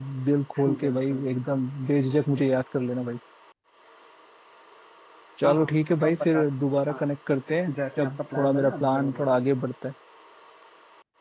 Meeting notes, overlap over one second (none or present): present